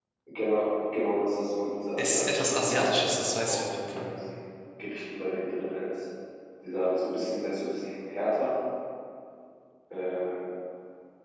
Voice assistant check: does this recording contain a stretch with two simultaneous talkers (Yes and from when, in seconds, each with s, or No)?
Yes, from 2.0 s